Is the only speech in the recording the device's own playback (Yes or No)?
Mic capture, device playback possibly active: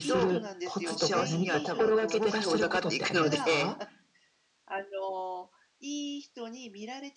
No